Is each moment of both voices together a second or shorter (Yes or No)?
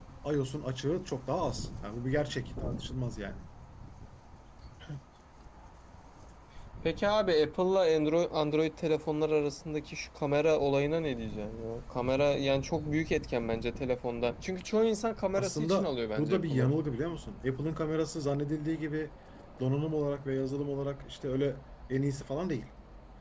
No